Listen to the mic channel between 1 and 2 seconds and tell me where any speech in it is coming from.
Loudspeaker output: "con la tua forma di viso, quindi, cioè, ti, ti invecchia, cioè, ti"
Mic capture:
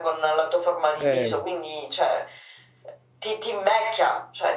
both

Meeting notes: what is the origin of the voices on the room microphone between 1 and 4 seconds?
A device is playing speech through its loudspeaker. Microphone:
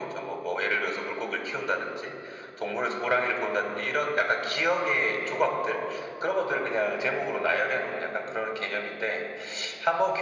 echo only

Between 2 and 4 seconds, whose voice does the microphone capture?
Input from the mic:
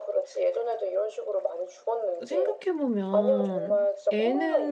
both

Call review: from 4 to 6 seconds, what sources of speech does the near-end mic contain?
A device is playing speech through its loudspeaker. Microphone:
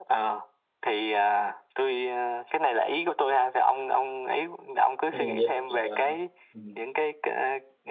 both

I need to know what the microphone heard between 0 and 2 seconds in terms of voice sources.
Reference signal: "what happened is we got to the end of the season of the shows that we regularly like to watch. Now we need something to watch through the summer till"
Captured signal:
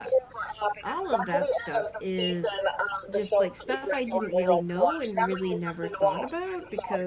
both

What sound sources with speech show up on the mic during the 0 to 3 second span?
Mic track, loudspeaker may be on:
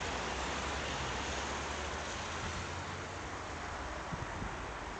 neither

